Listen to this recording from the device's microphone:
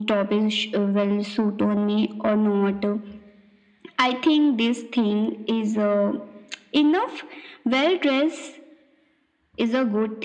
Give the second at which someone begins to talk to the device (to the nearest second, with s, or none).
none